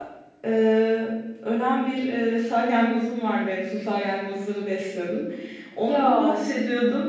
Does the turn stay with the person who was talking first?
Yes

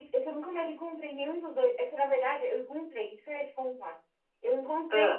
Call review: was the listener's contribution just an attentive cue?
Yes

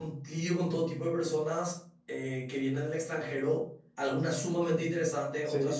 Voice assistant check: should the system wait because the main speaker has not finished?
Yes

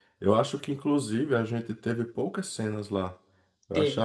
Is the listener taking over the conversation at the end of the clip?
No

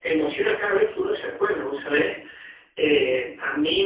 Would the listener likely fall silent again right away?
Yes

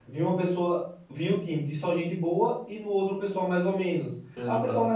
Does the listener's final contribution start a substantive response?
No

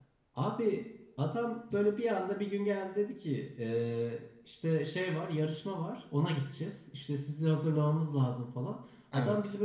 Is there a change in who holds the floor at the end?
No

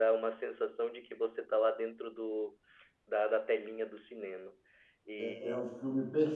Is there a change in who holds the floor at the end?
Yes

